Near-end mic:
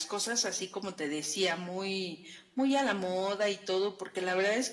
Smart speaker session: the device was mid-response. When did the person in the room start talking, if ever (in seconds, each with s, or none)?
none